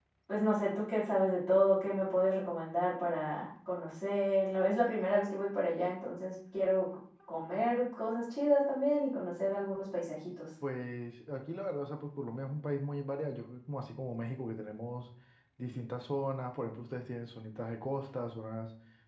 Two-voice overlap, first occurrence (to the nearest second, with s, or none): none